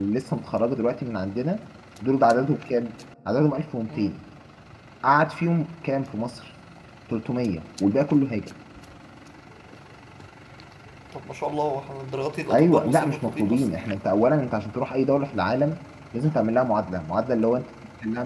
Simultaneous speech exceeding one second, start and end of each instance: 12.5-13.8

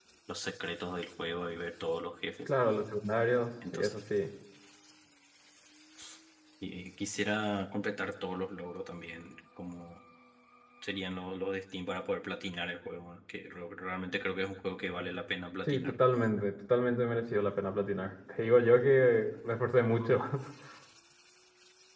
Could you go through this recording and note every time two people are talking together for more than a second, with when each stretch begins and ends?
none

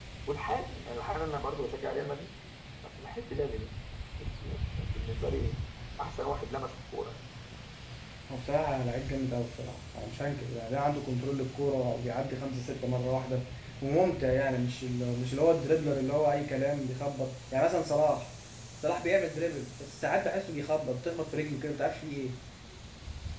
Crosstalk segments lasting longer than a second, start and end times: none

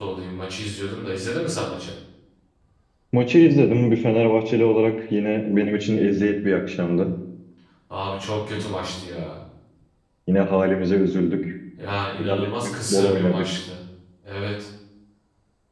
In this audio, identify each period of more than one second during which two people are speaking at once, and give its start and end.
12.2-13.4

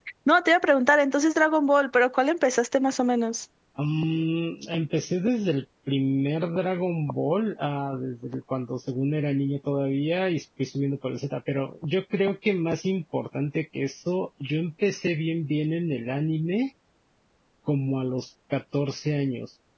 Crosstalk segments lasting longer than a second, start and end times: none

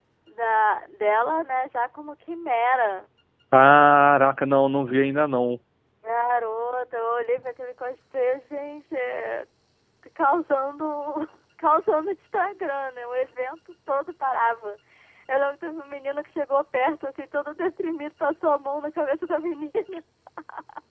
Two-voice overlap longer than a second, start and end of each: none

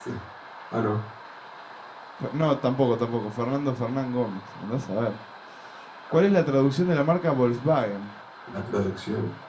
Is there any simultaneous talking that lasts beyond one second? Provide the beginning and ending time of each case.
none

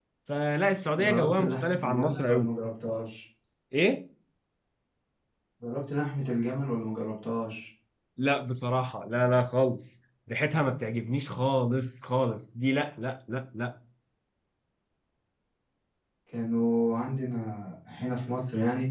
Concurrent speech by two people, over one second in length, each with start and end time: 1.0-2.5

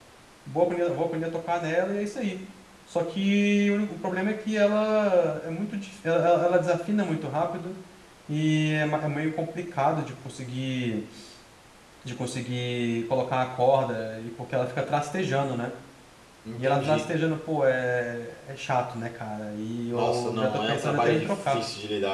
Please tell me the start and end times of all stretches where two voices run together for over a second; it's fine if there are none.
19.9-21.6

